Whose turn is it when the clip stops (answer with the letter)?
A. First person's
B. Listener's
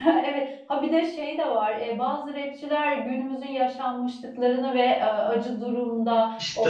A